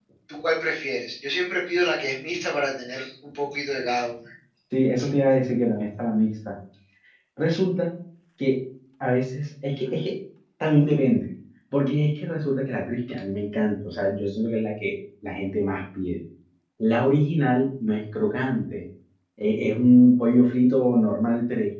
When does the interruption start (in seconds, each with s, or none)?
none